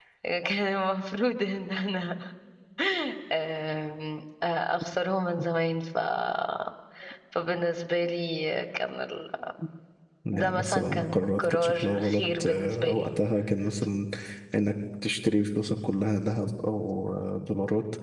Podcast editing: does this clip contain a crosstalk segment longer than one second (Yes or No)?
Yes